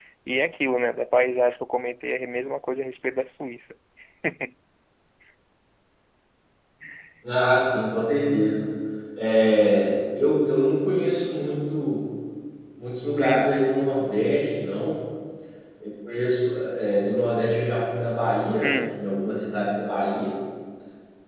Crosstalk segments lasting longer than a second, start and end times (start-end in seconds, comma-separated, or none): none